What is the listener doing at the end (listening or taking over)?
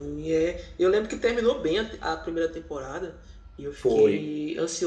listening